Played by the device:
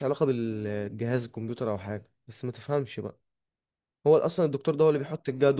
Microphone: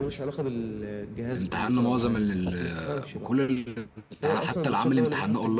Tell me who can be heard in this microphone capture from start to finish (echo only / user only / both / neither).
both